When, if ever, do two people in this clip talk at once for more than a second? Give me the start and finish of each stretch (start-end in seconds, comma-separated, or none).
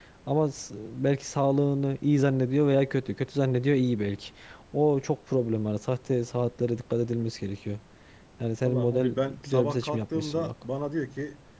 8.7-10.5